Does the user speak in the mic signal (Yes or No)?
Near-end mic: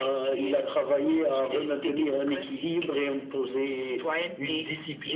No